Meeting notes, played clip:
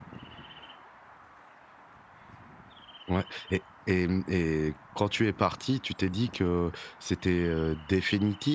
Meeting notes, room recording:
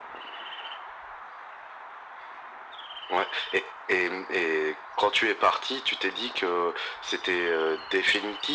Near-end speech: none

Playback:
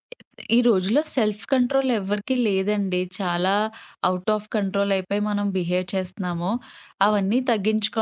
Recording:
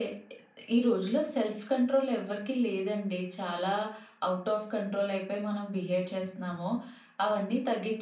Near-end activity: none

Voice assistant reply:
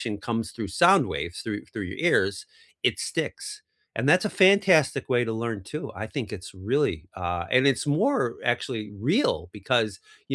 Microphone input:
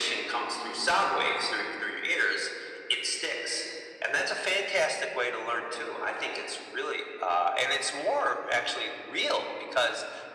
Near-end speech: none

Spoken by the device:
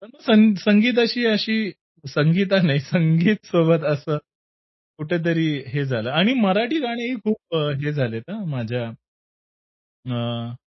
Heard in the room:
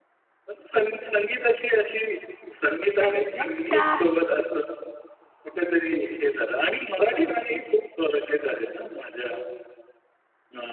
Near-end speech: present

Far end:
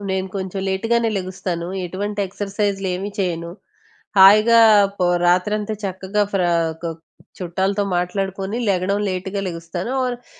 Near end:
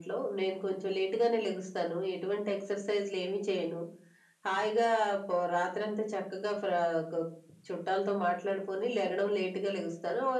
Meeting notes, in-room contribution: none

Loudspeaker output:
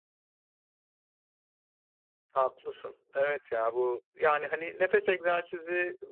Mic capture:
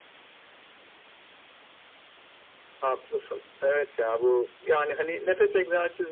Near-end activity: none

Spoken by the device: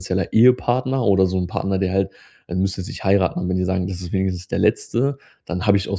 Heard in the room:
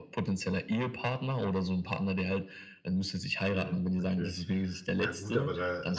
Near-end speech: present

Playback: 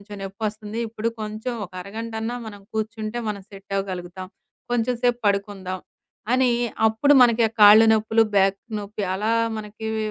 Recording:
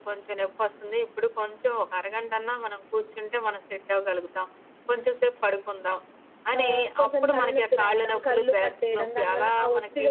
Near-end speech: present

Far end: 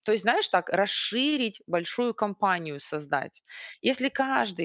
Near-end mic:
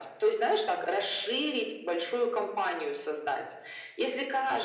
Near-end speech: none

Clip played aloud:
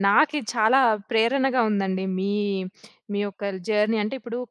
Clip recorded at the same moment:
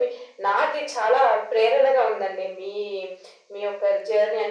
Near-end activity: none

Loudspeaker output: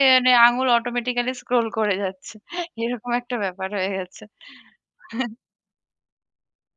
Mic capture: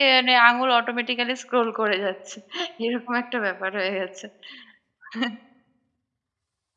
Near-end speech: none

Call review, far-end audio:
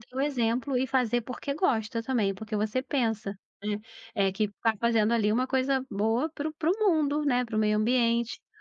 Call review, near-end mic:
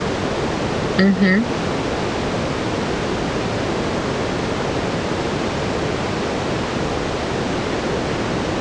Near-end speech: present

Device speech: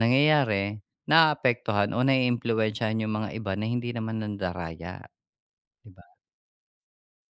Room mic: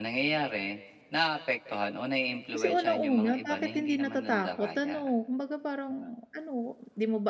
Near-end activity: present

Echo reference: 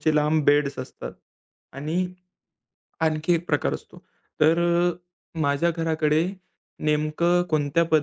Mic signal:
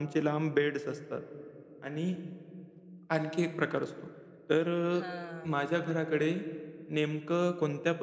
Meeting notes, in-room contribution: present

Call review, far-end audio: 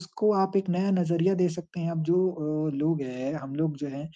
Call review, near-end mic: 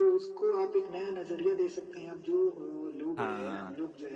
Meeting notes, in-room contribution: present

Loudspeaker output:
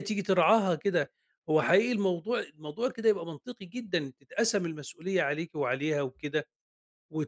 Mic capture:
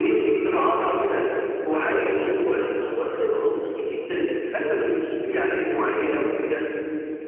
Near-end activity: none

